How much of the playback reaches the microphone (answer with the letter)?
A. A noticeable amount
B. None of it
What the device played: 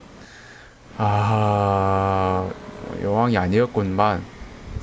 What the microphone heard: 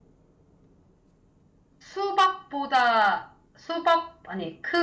B